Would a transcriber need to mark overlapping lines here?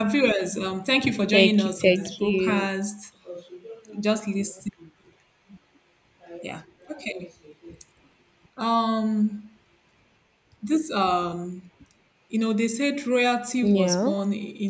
Yes, from 1.3 s

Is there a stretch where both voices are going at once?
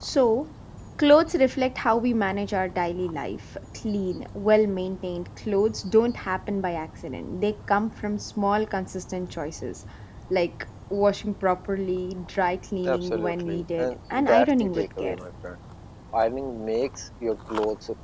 Yes, from 12.8 s

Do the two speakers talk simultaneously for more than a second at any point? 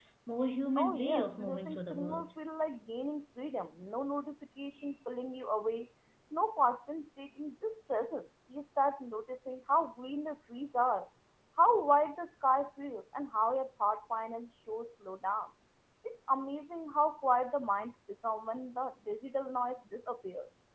Yes, from 0.8 s

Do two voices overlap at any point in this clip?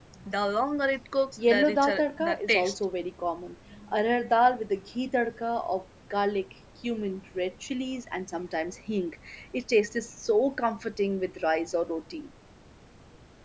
Yes, from 1.4 s

